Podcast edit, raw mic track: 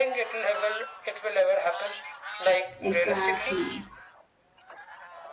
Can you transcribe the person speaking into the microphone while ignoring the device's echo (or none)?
Exactly,